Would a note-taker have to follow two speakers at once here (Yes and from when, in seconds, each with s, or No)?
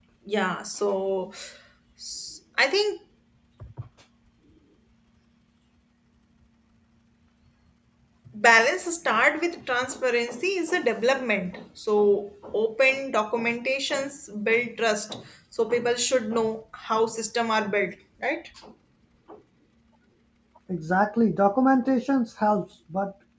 No